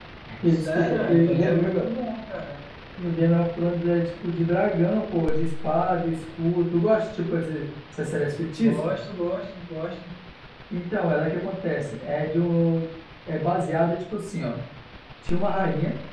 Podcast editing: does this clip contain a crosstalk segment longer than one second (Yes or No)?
Yes